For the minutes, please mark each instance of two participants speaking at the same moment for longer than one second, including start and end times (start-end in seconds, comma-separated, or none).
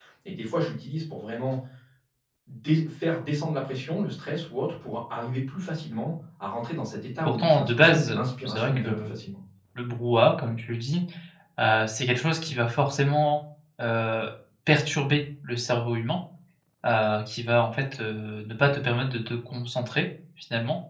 7.2-9.2